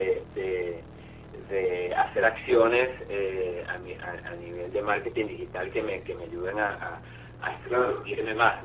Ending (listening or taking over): listening